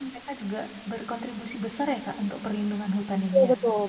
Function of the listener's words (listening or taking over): taking over